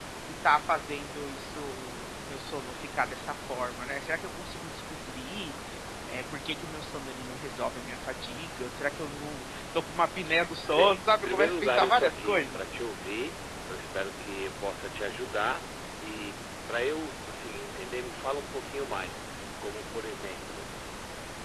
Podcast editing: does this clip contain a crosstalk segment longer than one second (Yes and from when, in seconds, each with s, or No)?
Yes, from 10.7 s